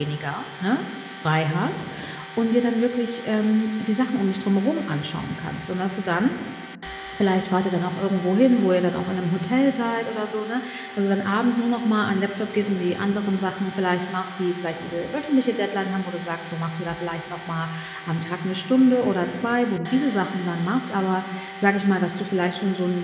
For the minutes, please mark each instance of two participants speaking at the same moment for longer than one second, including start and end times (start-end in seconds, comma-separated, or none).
none